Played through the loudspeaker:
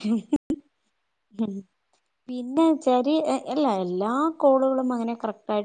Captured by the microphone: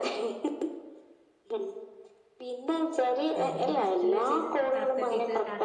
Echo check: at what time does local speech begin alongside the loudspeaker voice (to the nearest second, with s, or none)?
3 s